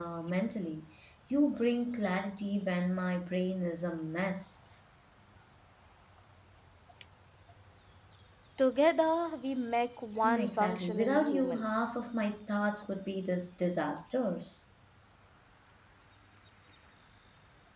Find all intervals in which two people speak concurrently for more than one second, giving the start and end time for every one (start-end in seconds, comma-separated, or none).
10.2-11.7